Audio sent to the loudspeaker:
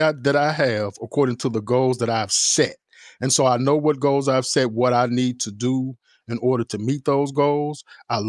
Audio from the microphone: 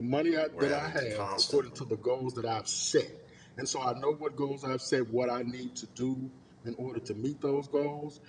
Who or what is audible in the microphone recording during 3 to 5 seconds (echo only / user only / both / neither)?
echo only